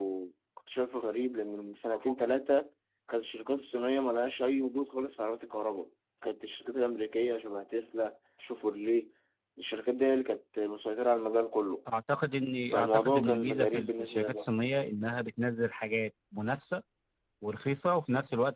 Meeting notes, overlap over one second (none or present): present